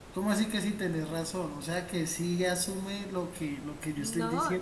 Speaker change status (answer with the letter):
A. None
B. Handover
B